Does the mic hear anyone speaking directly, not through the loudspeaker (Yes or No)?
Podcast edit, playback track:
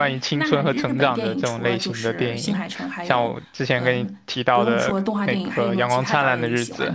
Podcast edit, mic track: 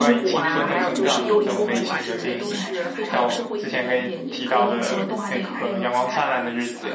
Yes